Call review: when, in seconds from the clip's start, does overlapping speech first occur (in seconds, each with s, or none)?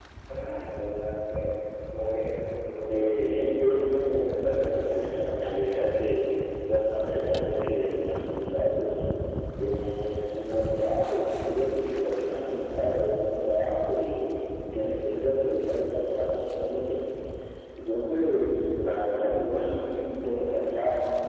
2.9 s